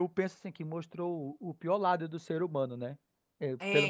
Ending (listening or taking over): taking over